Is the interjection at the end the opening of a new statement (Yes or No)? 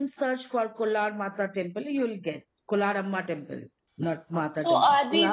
Yes